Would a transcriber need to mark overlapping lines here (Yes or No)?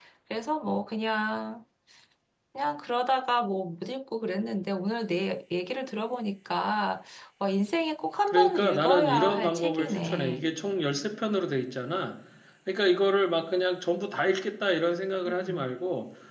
Yes